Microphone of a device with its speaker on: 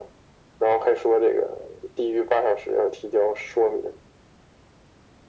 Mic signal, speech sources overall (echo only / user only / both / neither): echo only